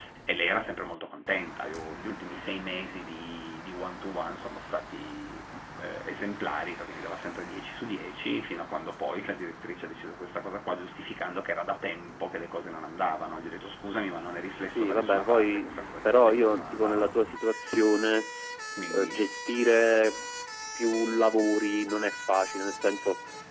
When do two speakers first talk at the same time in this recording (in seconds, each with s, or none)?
14.8 s